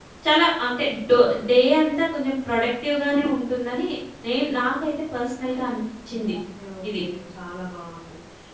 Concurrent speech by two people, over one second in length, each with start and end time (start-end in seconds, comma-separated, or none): none